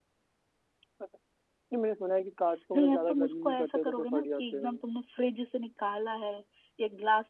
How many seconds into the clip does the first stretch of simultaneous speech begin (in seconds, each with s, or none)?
2.7 s